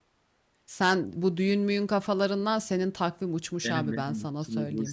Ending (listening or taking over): taking over